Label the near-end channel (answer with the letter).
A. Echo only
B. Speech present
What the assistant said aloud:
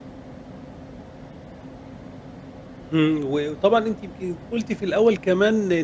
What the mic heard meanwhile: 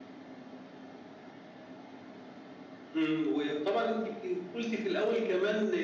A